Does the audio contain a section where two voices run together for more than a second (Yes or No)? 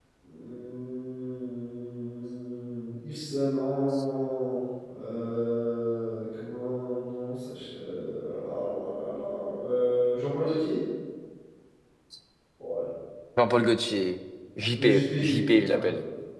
Yes